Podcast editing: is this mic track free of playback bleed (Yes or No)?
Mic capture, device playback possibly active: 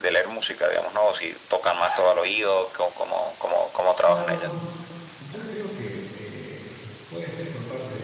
No